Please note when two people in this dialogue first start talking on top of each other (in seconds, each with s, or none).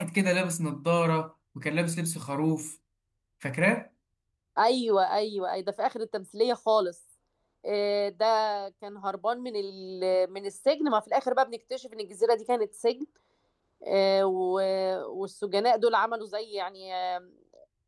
none